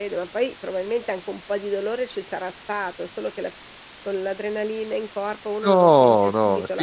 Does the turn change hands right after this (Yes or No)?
Yes